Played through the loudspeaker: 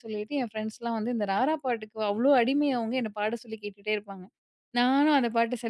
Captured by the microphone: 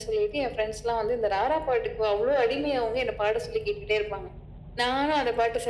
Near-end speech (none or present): none